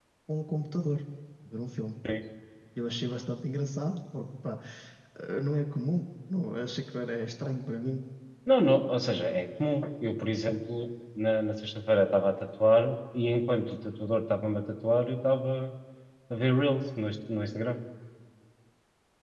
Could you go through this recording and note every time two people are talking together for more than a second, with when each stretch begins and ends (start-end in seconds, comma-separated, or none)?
none